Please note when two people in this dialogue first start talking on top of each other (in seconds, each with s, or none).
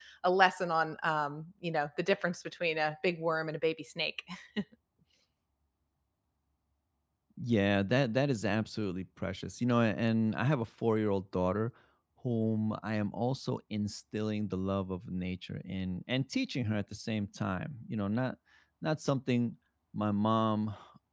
none